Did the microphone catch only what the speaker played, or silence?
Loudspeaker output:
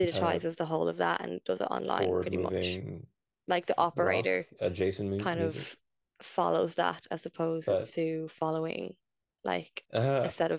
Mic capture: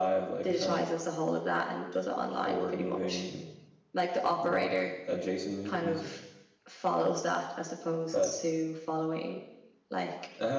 Yes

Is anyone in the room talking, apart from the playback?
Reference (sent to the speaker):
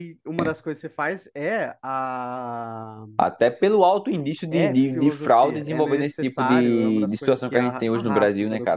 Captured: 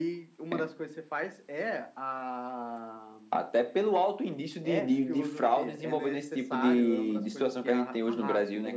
No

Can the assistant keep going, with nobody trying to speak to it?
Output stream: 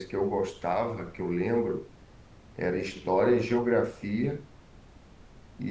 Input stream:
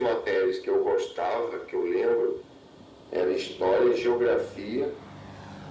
Yes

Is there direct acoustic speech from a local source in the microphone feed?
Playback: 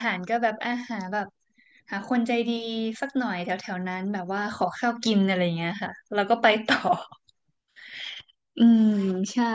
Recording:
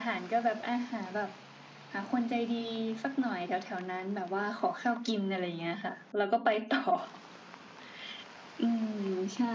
No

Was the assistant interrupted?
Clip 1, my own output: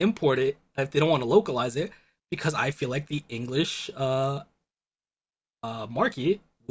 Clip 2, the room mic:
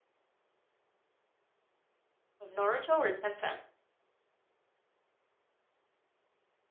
Yes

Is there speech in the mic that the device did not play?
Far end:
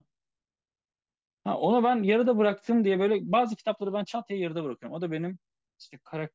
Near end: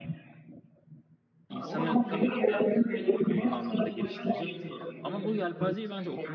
Yes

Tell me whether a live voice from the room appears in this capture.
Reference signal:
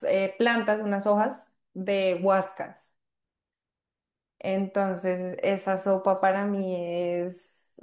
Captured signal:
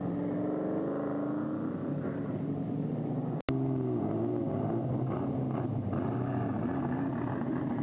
No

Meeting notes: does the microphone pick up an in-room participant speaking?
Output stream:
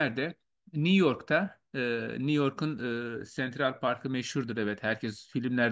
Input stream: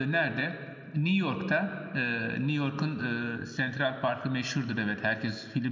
No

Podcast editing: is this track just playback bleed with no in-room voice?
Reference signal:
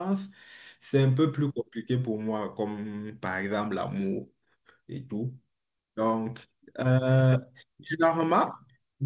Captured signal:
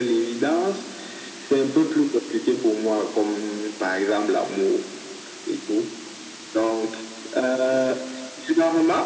Yes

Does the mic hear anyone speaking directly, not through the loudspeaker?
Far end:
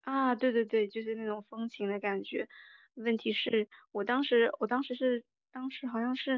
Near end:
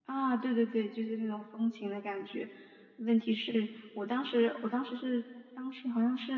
No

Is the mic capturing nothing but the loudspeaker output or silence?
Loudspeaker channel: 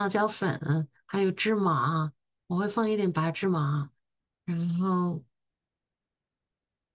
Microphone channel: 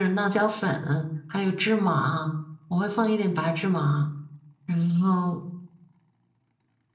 Yes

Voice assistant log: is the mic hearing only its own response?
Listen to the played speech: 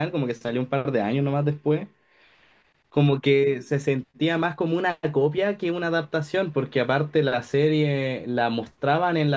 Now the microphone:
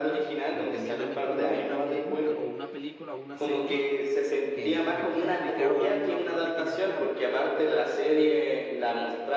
No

